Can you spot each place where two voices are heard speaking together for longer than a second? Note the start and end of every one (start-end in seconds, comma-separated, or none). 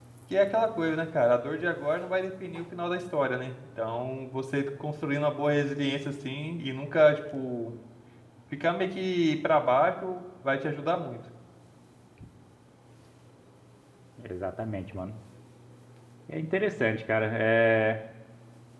none